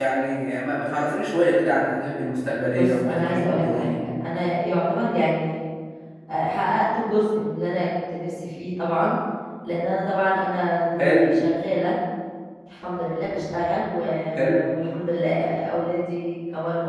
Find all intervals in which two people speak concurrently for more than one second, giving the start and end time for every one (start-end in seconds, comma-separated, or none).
2.7-4.0